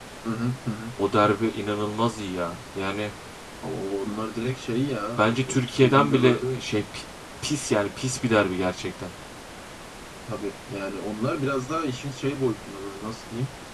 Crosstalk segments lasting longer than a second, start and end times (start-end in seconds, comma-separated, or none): 5.2-6.6